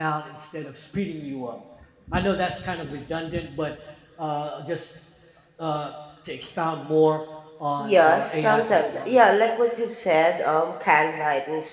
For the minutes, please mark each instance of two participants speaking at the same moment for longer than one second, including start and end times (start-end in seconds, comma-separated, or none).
8.0-9.3